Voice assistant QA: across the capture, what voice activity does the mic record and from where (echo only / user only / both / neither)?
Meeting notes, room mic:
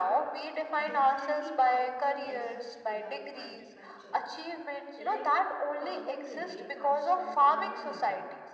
both